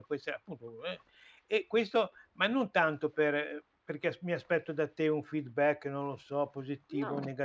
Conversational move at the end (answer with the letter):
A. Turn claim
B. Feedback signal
B